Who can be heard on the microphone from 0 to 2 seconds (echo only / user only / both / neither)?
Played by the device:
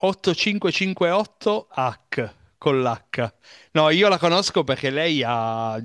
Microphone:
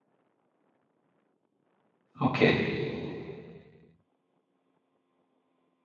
neither